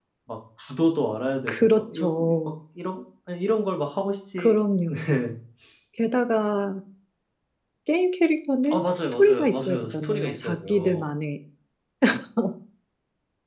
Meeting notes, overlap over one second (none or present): present